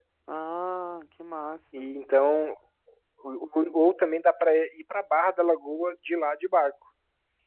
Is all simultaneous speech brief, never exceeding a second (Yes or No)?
Yes